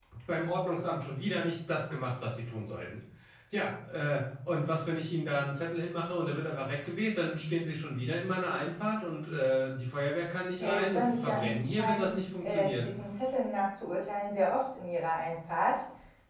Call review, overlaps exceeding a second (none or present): present